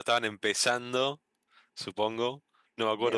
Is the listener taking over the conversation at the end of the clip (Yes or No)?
No